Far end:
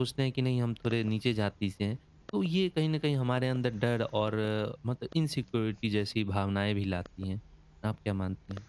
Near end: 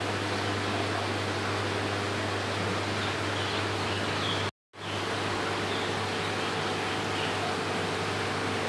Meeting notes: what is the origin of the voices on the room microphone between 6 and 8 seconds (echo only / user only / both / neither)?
neither